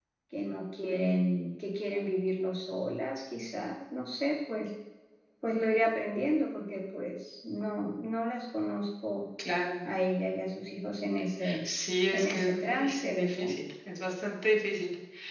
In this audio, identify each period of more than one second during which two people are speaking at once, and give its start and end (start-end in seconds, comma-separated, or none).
12.1-13.5